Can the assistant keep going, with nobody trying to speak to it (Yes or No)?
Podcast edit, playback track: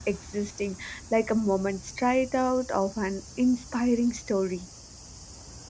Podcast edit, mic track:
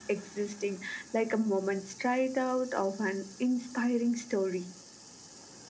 Yes